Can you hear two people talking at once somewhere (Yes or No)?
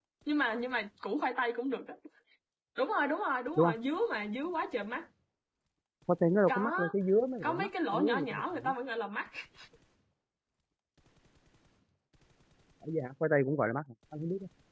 Yes